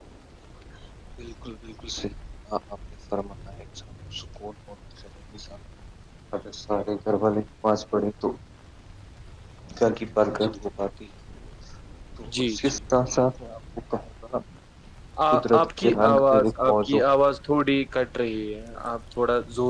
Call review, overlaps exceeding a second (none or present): present